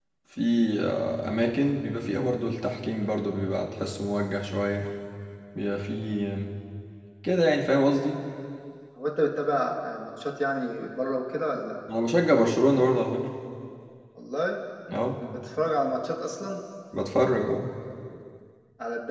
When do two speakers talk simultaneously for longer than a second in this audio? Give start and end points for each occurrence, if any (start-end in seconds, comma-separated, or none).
none